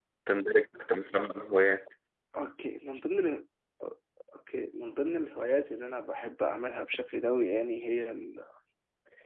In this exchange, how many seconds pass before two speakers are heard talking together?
none

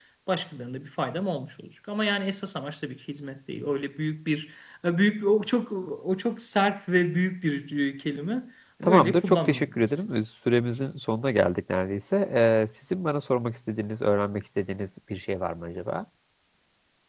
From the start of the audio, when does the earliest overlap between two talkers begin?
8.8 s

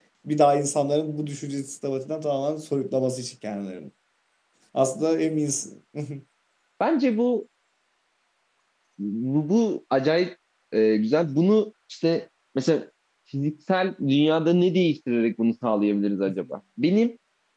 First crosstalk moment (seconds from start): none

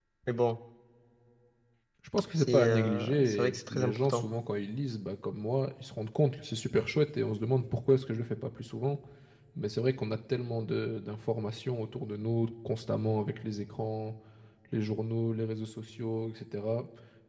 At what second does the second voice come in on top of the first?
2.4 s

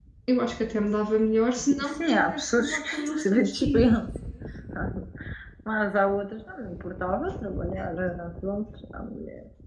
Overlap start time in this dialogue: 1.8 s

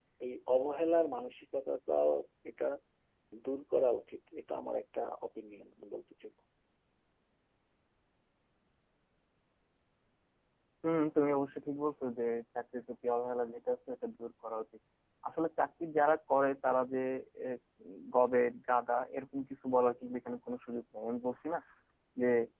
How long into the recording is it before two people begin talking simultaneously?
none

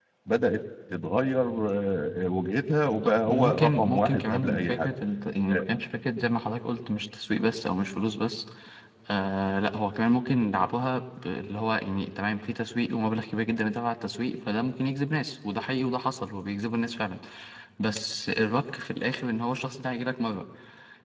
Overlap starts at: 3.0 s

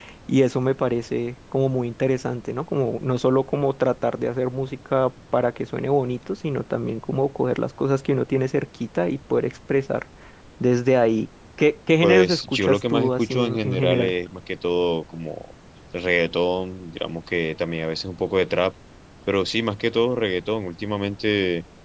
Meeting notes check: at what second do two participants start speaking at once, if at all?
12.0 s

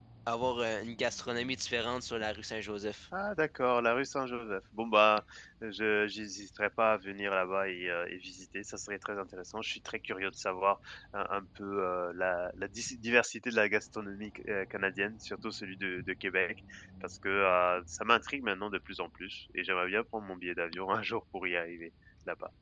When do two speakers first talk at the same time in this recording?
none

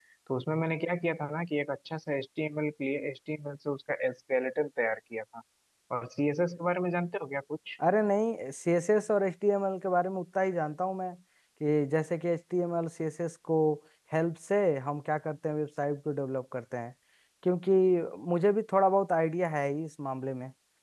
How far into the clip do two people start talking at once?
none

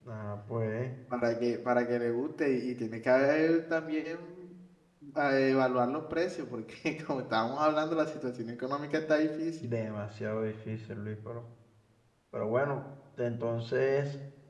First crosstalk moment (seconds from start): none

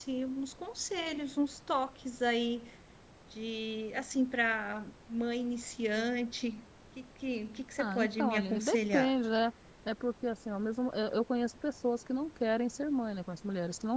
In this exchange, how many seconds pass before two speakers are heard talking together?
7.8 s

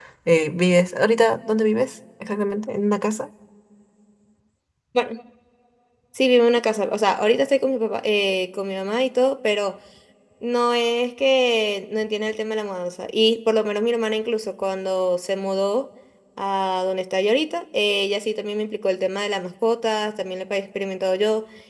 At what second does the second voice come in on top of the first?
none

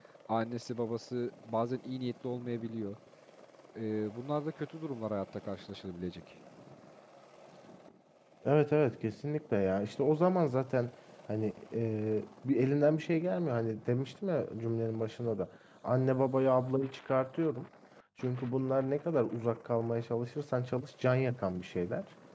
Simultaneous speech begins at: none

